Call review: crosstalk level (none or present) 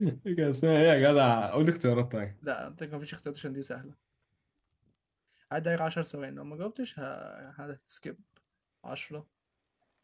none